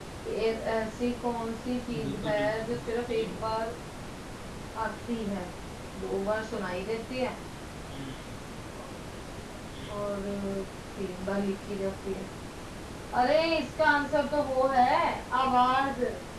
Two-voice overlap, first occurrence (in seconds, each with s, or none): 1.9 s